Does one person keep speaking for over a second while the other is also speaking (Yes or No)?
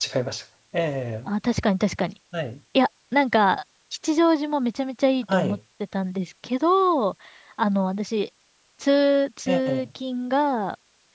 No